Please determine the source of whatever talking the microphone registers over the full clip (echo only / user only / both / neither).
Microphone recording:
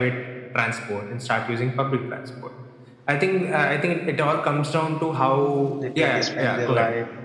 both